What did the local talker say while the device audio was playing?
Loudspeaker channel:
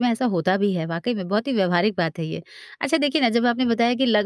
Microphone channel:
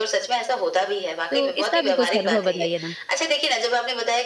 तो इसका भी कुछ अनुभव बताइए ना।

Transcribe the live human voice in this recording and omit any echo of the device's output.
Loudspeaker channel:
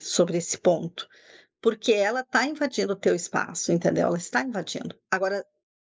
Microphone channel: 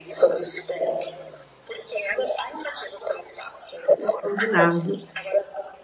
O combinado.

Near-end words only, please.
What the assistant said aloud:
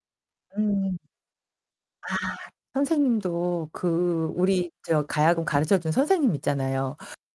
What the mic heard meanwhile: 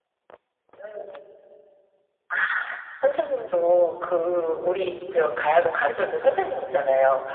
none

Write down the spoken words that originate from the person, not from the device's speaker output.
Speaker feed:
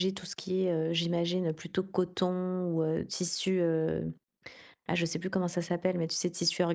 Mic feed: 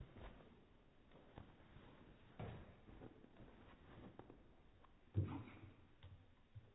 none

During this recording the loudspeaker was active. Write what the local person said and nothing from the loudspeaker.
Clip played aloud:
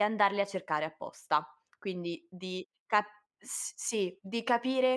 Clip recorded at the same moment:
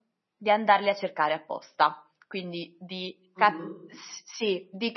Mh-mh.

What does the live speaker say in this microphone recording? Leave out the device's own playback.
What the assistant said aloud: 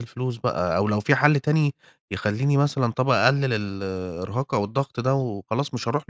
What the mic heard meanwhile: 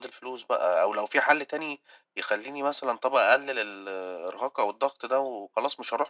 none

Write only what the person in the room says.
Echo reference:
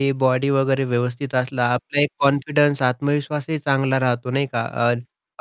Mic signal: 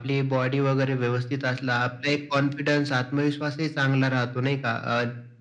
none

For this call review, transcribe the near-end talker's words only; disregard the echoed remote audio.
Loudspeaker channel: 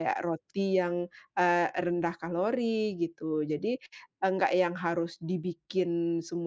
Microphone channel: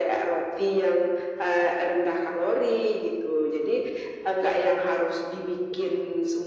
none

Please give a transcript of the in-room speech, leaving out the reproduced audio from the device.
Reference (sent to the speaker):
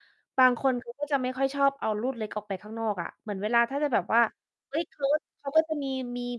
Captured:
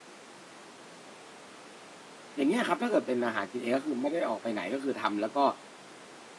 อย่างเงี้ยครับ ถ้าเกิดเป็นอาหารกินเอง ก็คือไม่ได้ออกไปไหน ก็คือทำแล้วก็

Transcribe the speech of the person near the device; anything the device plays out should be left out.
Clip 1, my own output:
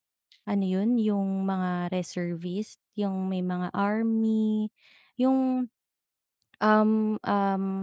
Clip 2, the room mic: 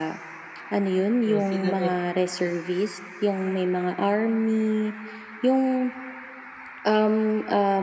So sila na yu hmm.

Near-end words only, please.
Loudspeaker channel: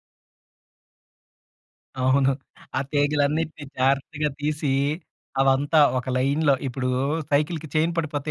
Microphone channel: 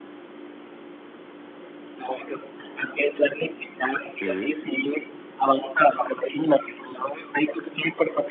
హ్మ్.

